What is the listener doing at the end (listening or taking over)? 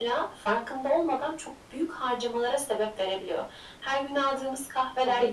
listening